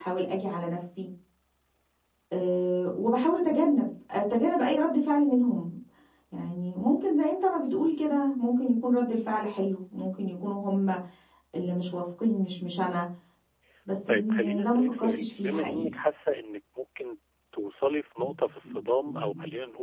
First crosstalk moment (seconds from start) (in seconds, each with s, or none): 14.1 s